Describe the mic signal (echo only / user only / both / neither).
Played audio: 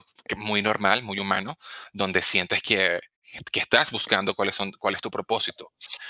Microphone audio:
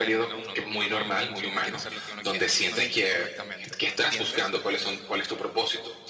both